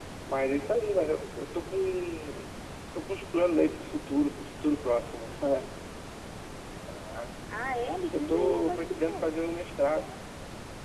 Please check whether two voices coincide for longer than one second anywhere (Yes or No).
Yes